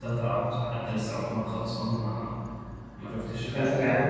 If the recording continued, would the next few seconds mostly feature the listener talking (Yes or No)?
Yes